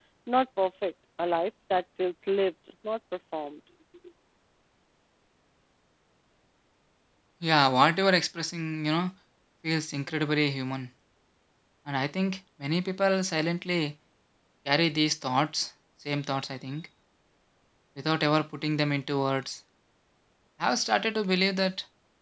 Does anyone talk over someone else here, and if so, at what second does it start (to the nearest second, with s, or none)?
none